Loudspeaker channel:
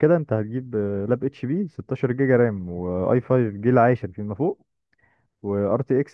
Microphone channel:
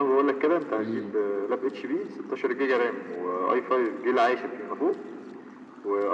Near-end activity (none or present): present